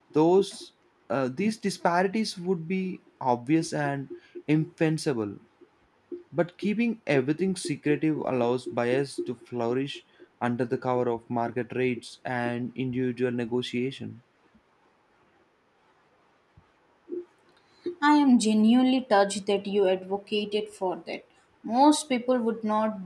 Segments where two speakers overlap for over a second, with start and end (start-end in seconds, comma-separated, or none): none